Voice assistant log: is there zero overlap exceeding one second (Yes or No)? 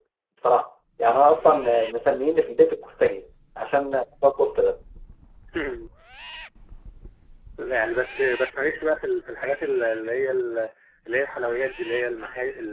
Yes